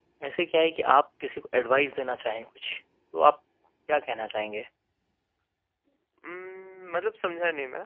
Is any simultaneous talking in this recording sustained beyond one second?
No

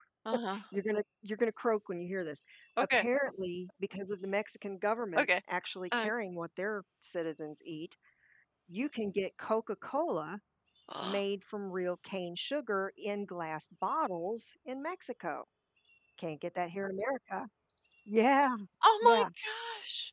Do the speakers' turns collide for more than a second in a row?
No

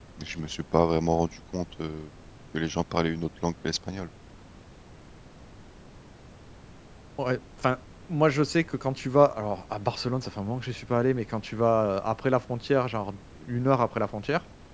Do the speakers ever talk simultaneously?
No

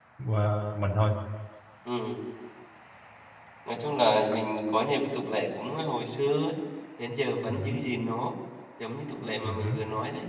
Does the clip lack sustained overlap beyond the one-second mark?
Yes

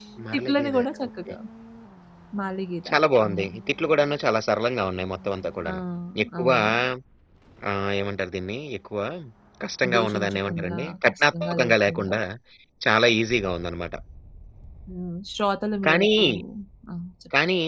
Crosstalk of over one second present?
Yes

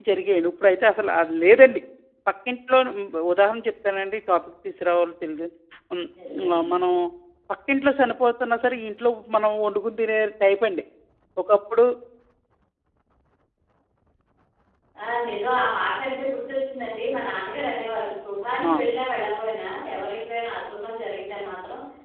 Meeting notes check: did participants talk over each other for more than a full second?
No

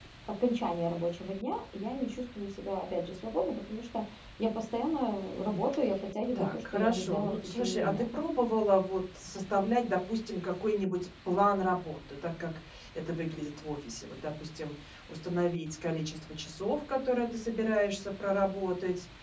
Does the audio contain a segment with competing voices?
Yes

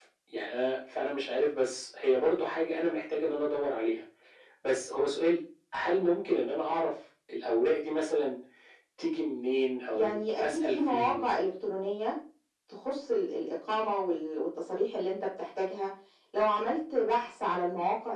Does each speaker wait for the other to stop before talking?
No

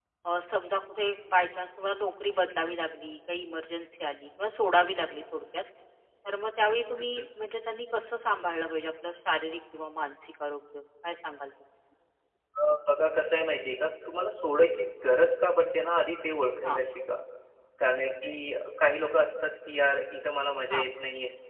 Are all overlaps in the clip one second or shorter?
Yes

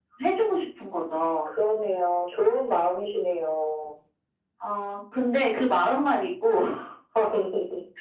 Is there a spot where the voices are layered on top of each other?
No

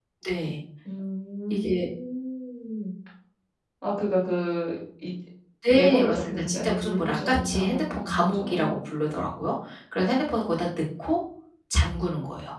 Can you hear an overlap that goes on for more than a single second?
Yes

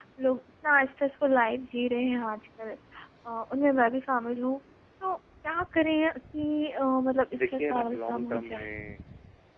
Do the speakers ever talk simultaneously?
Yes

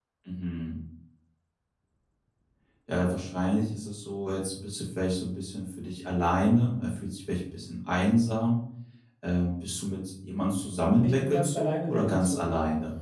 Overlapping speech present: Yes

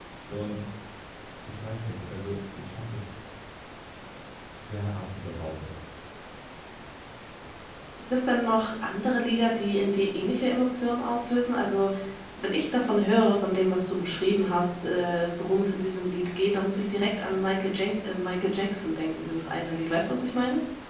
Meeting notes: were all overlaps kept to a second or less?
Yes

